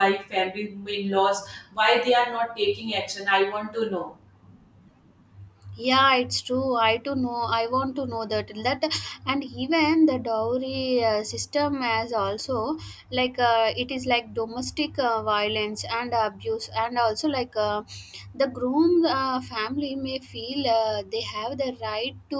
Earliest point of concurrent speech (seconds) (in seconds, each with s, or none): none